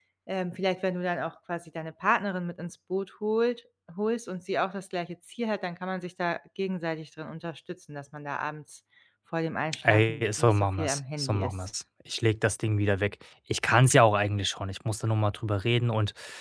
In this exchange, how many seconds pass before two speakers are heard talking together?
9.8 s

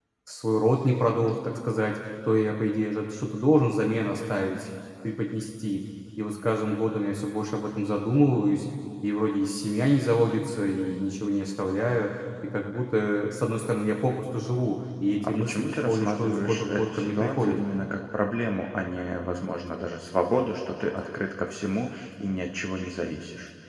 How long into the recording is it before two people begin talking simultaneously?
15.2 s

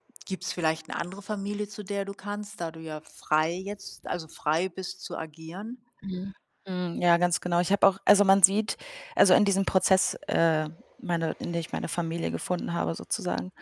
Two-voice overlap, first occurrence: none

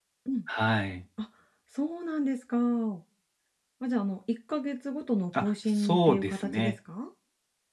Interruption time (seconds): 5.3 s

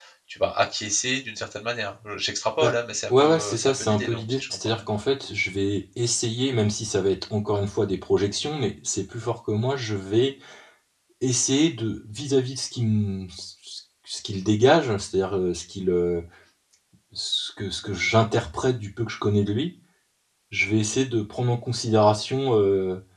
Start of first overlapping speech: 3.1 s

